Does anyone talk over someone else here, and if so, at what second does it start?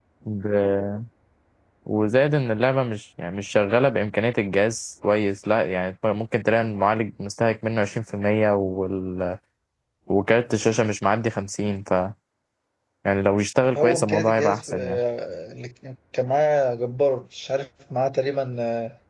14 s

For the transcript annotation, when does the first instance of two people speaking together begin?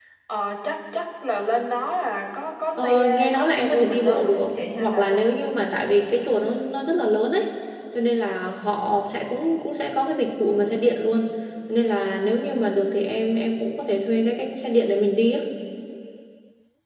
3 s

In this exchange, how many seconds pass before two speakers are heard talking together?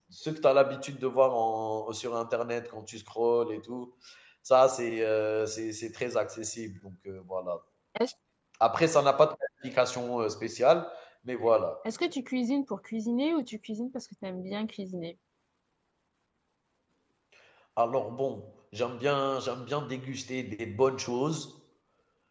none

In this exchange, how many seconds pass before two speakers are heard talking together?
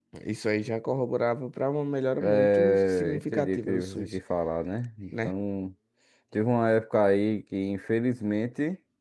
2 s

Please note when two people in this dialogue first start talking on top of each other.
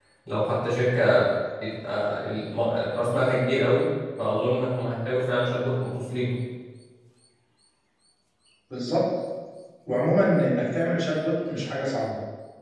none

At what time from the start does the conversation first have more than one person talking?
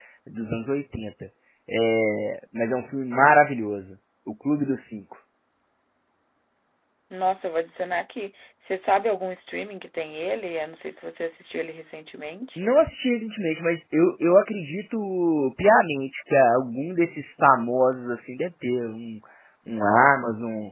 none

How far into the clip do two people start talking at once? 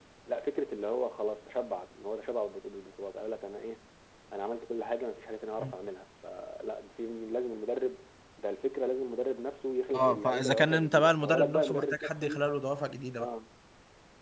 10 s

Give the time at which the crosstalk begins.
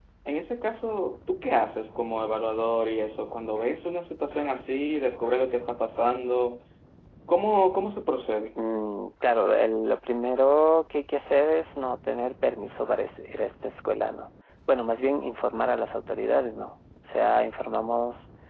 none

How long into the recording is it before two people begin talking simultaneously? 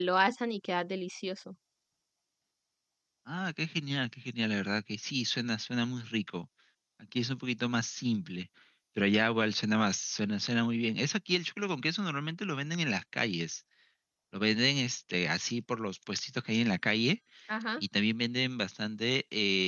none

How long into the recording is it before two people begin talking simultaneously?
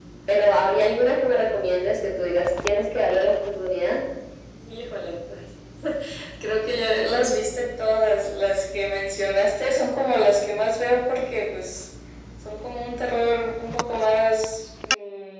none

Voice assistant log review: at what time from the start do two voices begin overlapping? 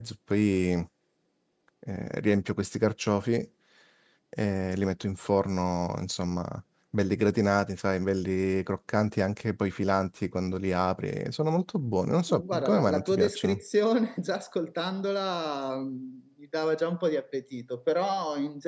12 s

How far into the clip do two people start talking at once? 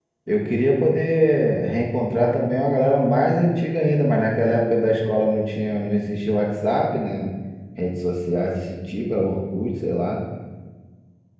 none

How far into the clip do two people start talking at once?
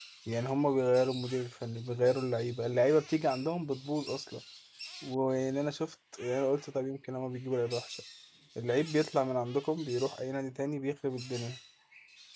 none

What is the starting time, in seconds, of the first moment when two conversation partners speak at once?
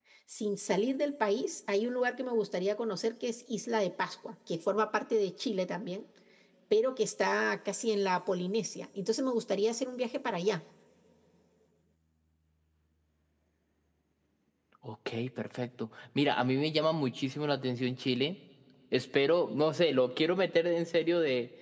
none

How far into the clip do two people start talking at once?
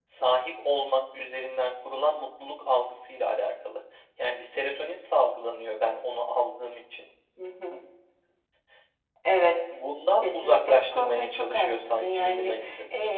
10 s

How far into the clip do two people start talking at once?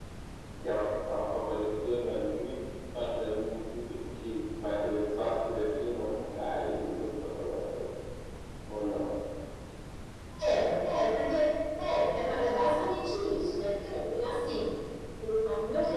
none

